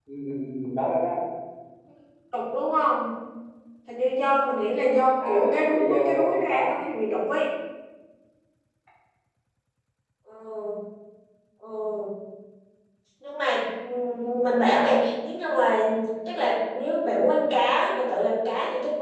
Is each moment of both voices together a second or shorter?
No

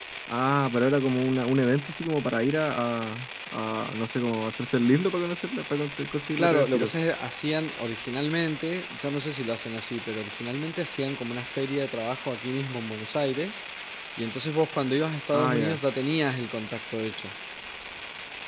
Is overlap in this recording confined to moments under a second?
Yes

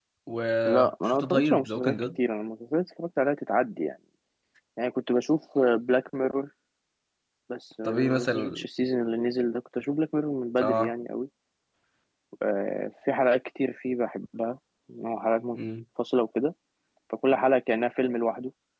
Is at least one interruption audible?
Yes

